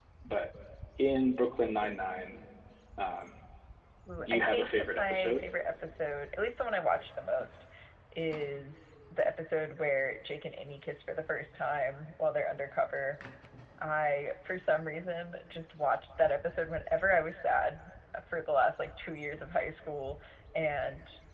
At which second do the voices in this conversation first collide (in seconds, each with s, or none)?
4.2 s